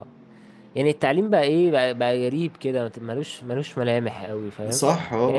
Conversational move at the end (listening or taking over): taking over